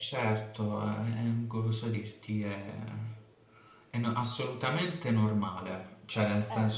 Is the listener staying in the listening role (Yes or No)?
Yes